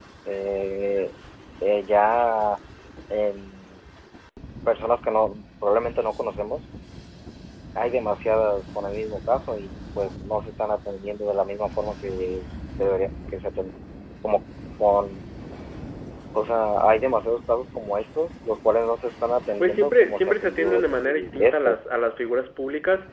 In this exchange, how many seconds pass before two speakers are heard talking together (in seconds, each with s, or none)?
19.6 s